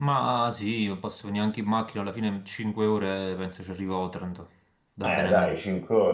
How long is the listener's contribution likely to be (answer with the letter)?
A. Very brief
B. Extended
B